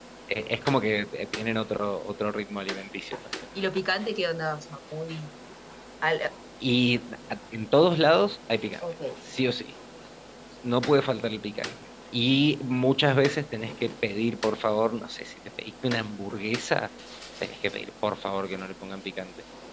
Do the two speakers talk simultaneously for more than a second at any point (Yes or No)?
No